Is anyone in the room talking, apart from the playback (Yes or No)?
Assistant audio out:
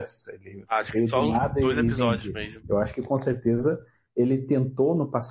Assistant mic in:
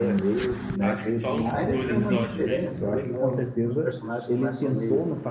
Yes